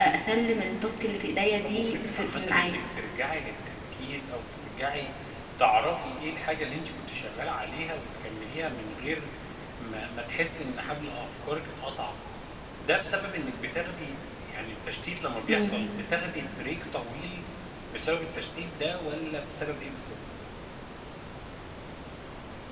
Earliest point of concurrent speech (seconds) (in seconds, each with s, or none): 1.6 s